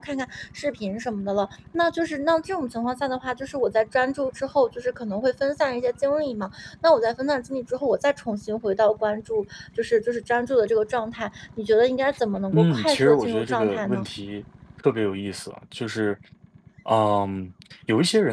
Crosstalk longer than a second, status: present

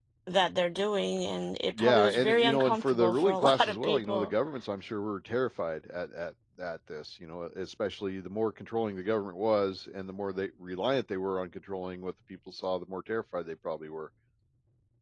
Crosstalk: present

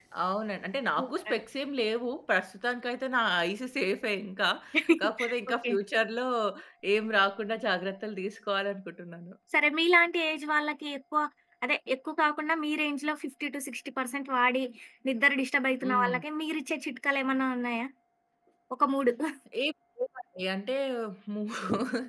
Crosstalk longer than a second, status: none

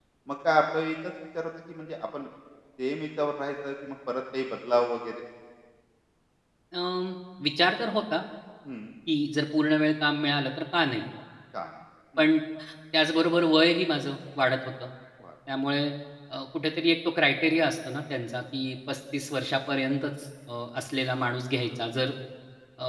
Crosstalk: none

